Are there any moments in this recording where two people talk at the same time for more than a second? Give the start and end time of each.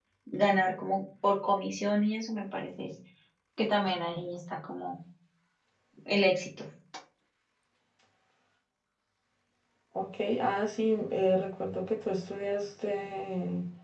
none

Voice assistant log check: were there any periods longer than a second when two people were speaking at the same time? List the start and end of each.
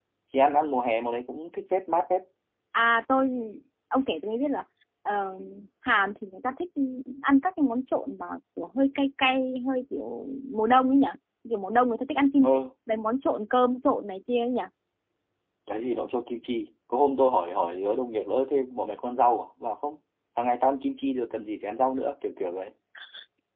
none

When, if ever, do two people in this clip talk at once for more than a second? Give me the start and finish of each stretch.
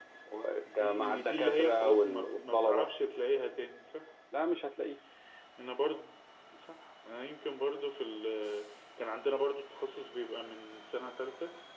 0.8-2.9

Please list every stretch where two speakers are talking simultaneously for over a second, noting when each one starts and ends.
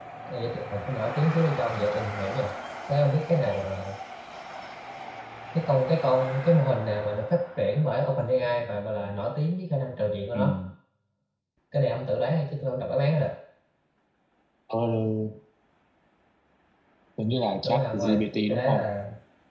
17.6-18.9

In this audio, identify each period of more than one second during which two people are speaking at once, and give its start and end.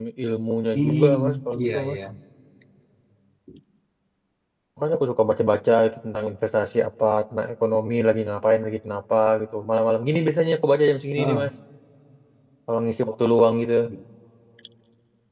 0.7-2.0

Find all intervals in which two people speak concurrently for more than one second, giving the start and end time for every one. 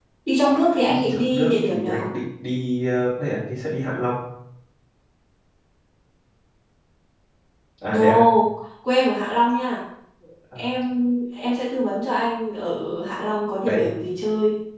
0.9-2.1

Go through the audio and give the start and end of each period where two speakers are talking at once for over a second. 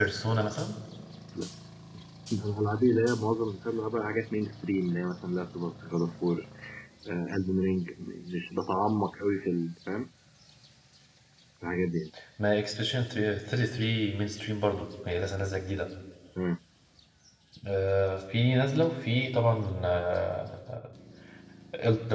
none

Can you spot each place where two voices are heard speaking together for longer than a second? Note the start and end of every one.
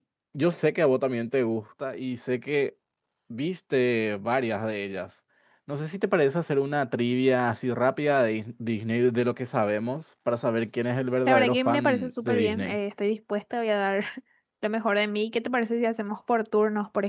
11.3-12.8

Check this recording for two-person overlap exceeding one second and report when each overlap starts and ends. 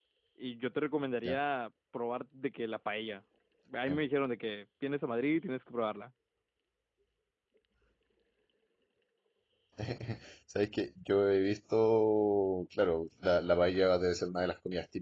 none

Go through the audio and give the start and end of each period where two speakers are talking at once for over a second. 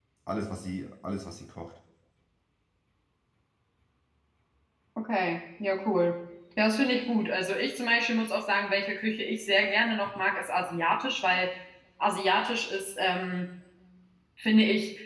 none

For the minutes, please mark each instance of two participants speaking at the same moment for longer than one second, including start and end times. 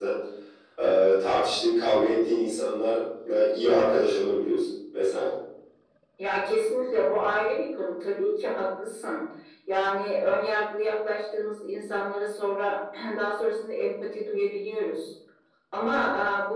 none

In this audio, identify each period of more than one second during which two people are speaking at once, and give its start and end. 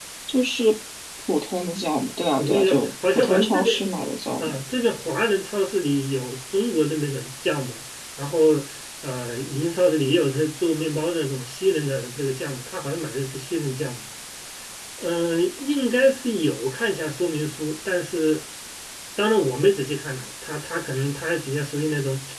2.4-3.8

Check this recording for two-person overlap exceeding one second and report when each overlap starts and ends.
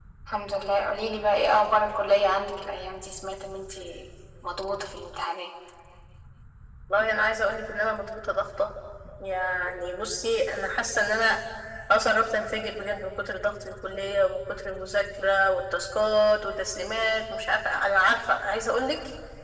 none

